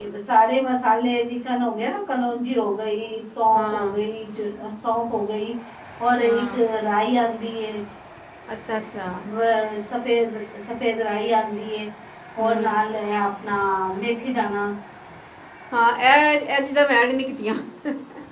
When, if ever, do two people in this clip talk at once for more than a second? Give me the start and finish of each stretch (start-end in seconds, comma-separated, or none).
none